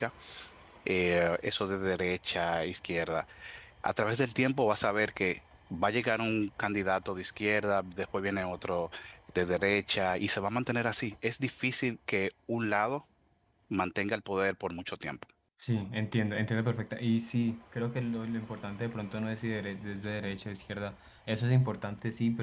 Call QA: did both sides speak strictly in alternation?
Yes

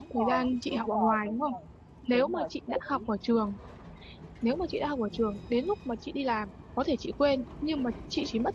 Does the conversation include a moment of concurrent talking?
Yes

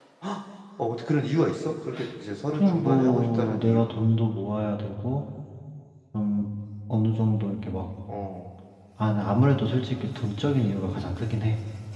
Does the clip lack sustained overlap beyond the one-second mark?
No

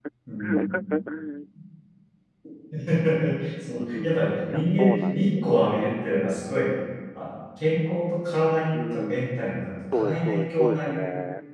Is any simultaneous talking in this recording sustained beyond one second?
Yes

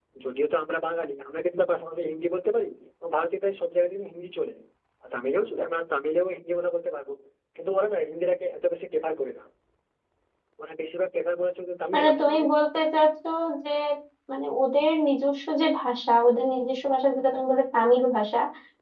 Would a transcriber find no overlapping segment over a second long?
Yes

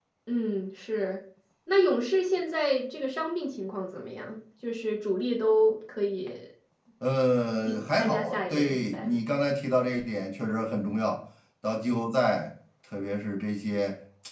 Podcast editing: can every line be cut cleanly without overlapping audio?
No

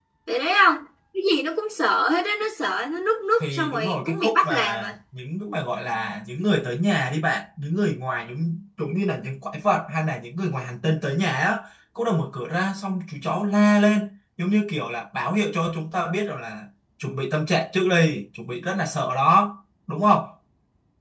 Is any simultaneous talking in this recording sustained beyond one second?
Yes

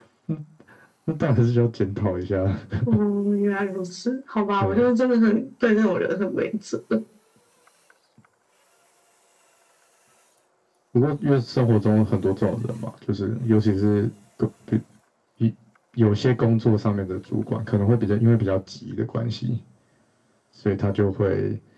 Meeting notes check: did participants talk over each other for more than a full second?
No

